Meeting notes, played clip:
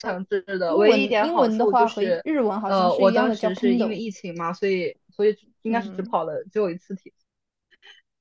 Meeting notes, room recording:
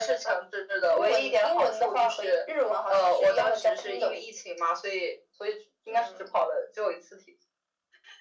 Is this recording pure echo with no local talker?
Yes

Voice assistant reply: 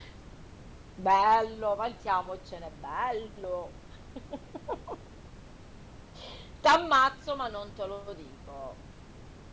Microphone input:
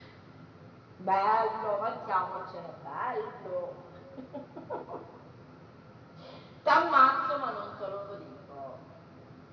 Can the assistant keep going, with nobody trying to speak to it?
Yes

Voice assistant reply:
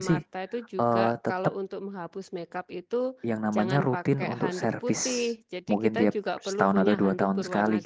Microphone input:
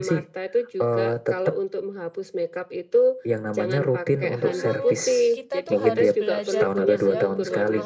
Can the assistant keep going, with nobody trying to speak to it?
No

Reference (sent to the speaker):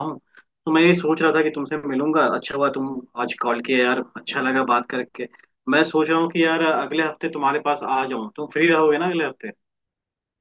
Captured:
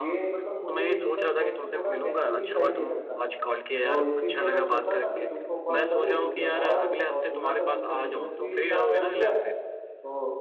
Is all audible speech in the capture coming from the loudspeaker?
No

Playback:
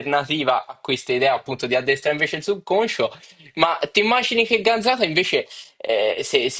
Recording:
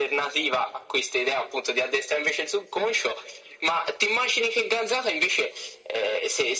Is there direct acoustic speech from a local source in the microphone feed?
No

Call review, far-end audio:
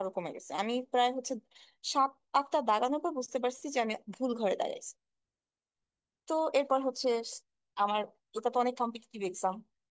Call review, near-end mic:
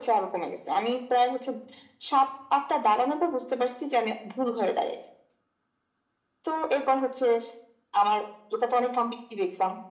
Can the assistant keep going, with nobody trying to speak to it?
Yes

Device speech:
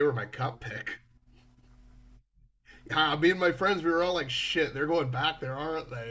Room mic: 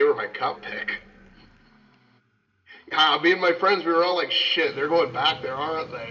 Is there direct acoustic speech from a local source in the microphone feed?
No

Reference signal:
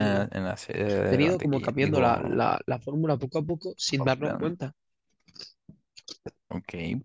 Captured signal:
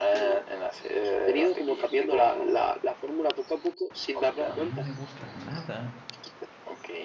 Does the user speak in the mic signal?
Yes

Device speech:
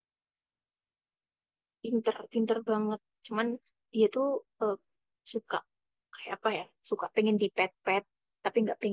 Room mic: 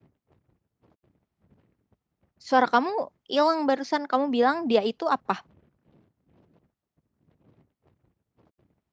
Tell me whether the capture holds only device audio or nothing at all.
No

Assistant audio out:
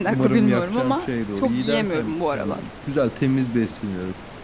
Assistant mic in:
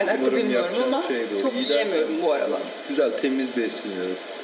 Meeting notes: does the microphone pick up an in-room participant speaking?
No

